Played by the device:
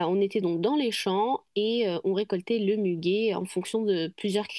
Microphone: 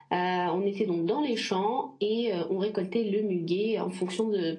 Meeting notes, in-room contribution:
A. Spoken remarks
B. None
B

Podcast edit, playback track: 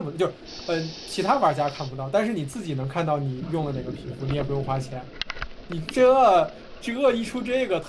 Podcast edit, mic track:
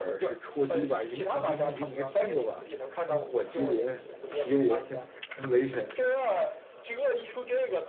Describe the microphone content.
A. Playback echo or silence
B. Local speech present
B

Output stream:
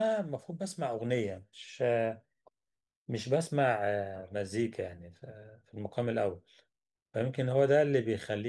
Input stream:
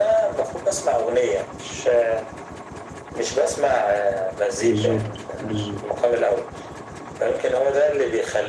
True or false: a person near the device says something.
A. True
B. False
A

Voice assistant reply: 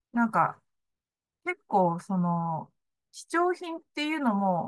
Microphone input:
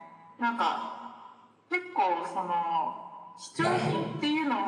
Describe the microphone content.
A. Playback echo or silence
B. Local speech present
B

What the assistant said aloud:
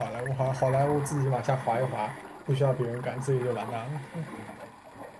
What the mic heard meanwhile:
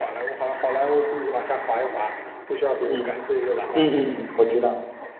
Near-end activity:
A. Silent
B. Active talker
B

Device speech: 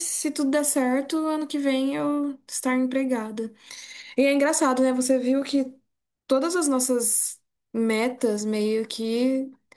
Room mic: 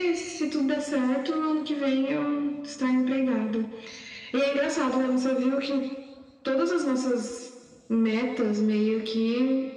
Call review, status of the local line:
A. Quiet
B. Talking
A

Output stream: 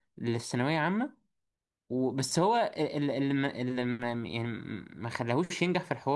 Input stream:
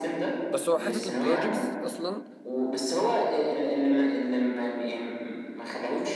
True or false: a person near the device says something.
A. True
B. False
A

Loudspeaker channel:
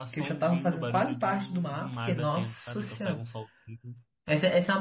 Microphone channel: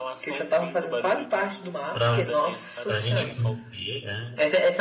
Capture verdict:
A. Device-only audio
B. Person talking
B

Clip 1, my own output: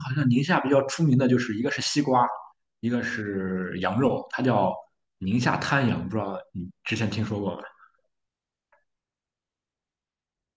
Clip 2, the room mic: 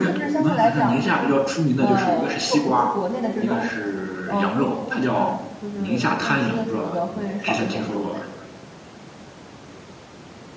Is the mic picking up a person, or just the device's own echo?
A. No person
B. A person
B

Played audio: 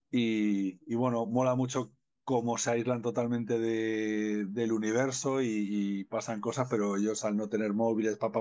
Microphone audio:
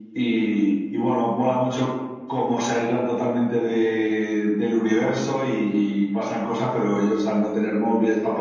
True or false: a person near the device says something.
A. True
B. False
B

